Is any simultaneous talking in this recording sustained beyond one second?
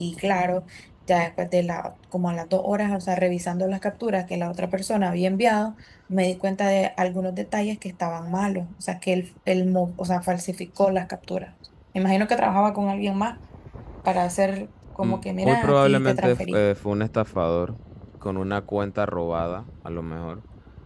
Yes, from 15.0 s

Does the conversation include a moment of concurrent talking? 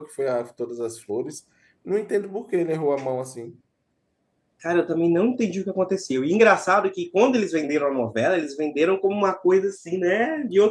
No

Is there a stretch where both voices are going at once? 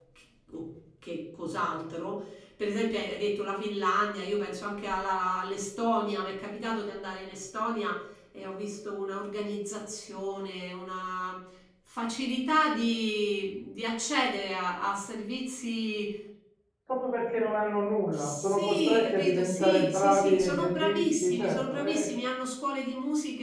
Yes, from 18.1 s

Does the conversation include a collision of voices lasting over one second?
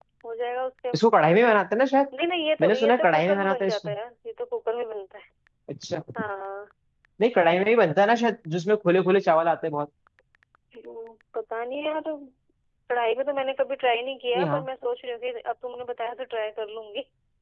Yes, from 2.6 s

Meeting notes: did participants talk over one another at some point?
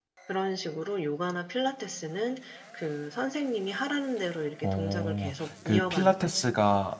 Yes, from 4.6 s

